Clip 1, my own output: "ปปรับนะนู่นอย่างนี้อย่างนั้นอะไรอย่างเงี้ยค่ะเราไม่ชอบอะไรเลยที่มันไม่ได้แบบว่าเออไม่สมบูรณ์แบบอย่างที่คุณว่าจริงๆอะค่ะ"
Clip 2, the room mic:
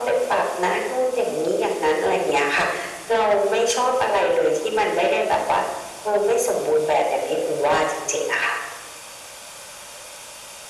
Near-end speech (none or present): none